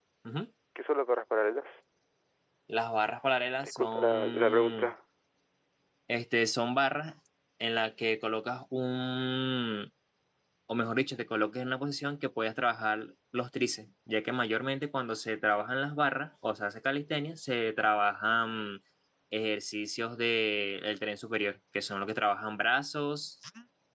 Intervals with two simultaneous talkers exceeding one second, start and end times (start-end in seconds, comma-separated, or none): 3.7-4.9